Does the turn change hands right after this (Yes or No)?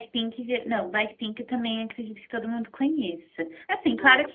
No